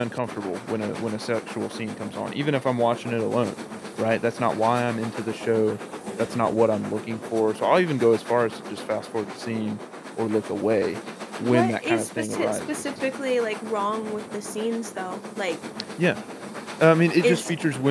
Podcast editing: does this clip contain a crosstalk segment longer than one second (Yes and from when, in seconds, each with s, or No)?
Yes, from 11.4 s